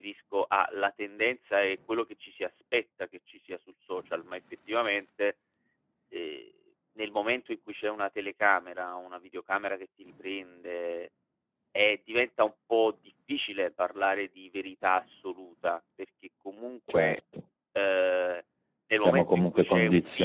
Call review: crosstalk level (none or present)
present